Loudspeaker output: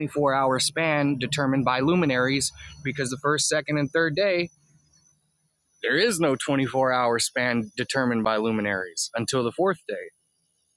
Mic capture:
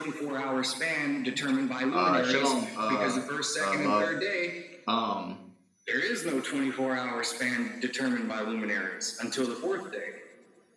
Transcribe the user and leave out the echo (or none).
uh shalom uh uh love um